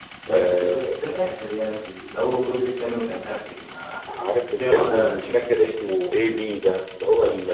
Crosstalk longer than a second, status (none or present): present